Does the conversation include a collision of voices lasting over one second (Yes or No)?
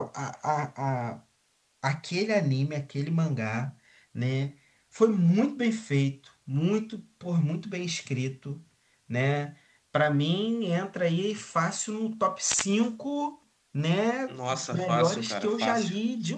Yes